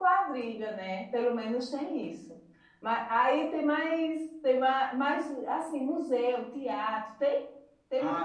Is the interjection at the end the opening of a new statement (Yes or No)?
Yes